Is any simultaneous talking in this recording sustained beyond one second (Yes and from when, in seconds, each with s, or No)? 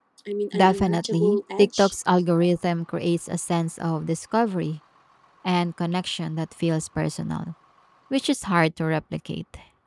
Yes, from 0.5 s